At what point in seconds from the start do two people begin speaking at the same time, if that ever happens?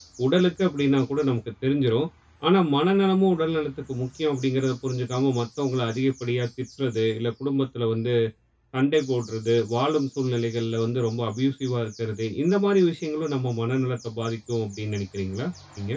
none

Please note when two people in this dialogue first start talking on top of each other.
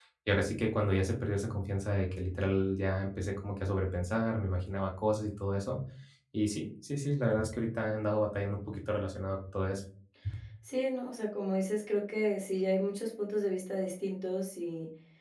none

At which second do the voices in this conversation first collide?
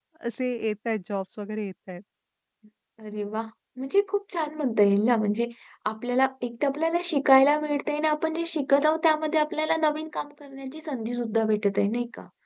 none

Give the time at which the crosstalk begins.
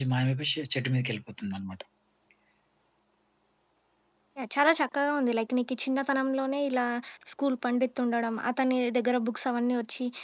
none

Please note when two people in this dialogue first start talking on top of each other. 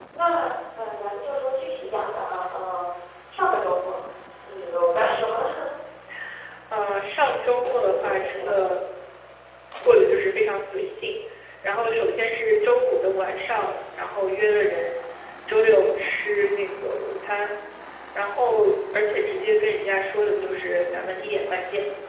8 s

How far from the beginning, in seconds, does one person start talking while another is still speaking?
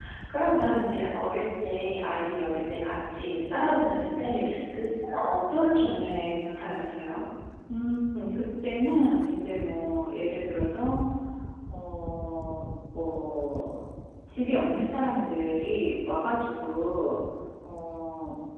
none

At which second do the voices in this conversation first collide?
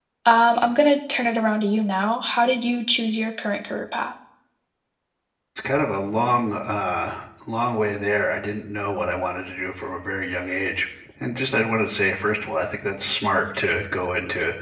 none

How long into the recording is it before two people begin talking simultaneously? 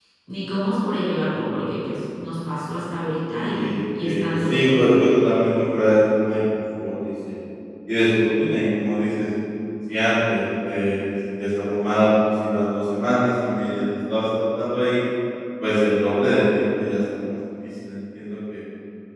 3 s

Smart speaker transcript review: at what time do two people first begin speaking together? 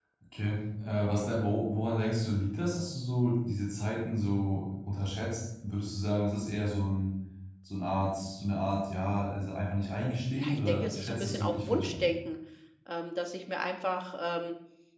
10 s

